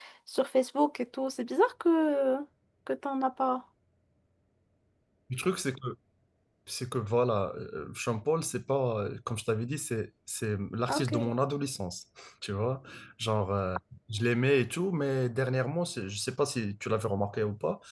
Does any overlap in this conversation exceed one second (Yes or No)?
No